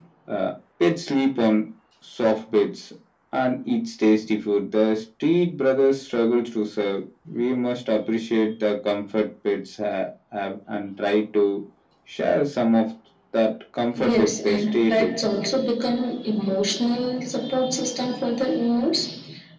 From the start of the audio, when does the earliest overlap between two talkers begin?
13.9 s

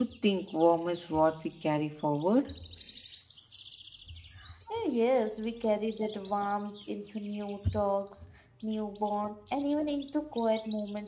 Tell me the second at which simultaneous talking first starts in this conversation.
none

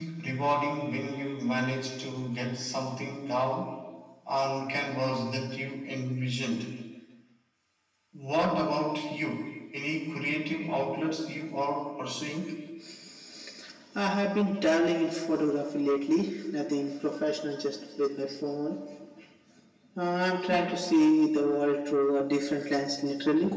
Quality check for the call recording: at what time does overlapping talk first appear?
none

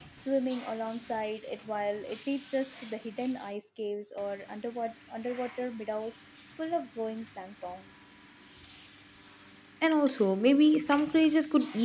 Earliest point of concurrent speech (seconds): none

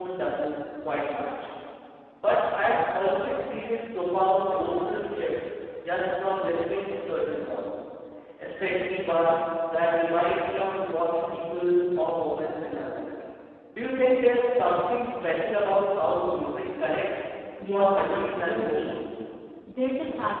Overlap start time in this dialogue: 17.6 s

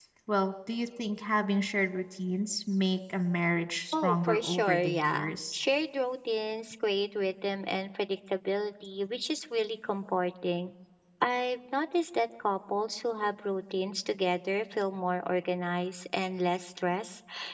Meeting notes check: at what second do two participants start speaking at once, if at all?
3.9 s

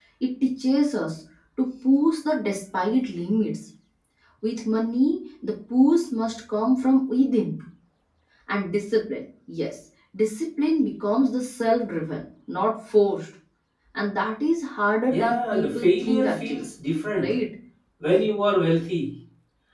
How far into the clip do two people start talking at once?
15.1 s

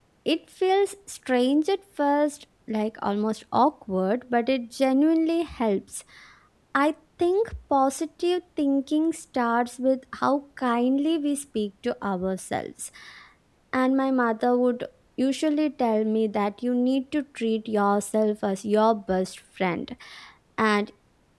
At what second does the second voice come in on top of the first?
none

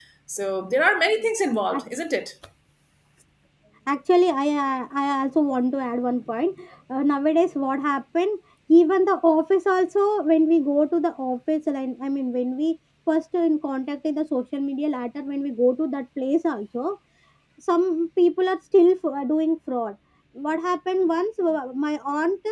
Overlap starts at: none

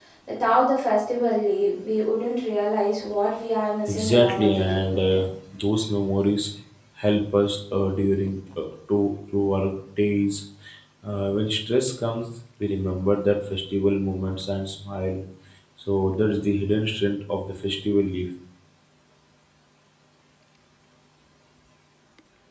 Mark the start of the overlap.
3.9 s

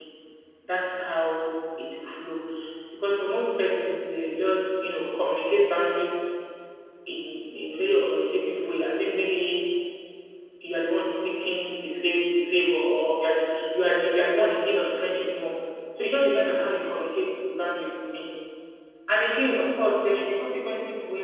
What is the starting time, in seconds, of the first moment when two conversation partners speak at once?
none

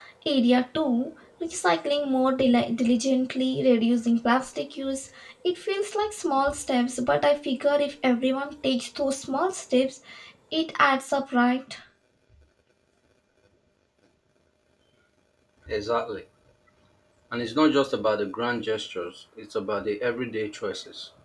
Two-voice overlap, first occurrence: none

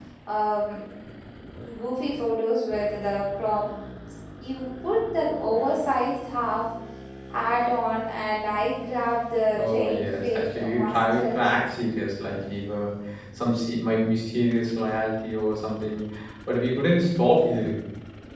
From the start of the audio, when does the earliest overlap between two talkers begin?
9.5 s

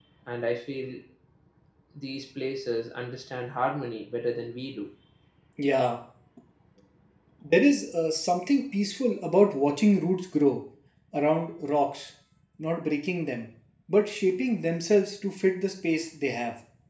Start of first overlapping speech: none

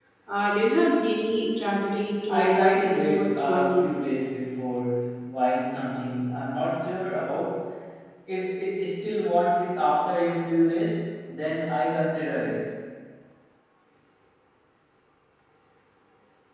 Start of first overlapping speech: 2.3 s

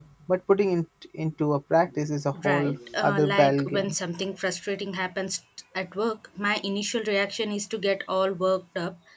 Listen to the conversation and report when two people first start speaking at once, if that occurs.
2.3 s

